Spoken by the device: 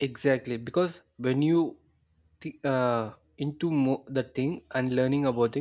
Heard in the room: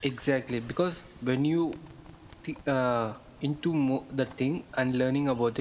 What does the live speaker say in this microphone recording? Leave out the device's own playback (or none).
none